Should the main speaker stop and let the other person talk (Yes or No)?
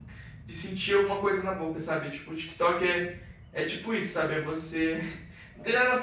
No